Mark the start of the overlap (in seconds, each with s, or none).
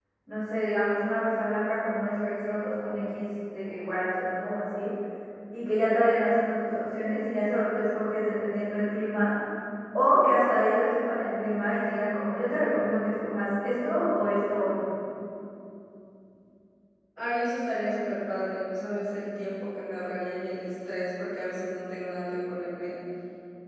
none